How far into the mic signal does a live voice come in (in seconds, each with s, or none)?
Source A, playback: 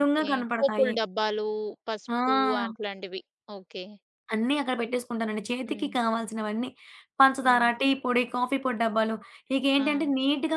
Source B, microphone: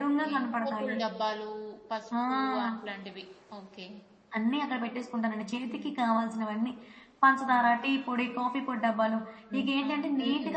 9.5 s